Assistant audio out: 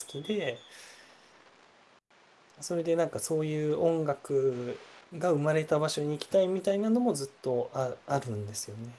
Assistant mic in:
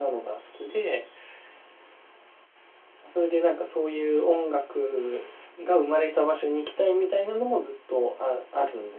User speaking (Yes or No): No